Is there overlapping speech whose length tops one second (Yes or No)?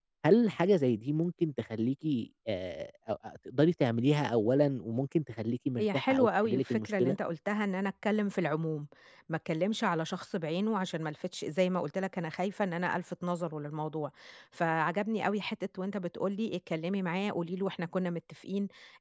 Yes